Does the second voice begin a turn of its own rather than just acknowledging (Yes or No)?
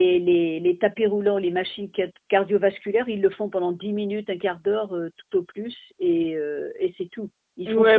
Yes